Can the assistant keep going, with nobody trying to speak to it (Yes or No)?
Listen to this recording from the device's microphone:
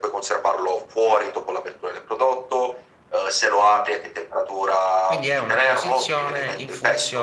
No